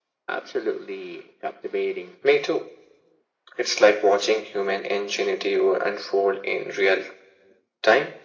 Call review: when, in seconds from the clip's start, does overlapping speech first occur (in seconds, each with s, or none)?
none